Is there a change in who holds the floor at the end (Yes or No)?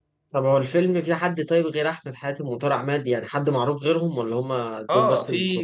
Yes